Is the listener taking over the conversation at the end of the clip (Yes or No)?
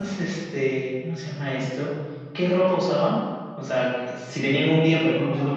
No